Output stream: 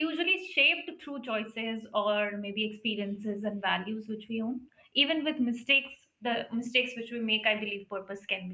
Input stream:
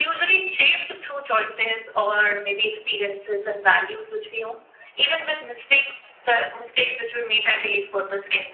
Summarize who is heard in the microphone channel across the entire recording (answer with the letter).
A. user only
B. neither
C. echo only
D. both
C